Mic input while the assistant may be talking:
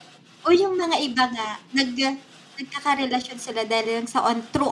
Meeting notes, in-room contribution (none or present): present